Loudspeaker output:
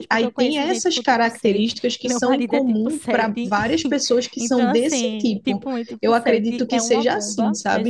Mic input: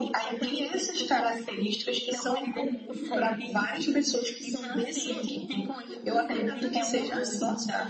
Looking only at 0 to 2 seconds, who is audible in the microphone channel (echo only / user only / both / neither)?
echo only